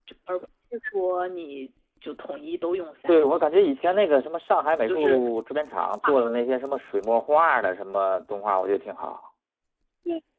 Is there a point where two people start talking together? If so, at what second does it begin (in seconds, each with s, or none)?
3.0 s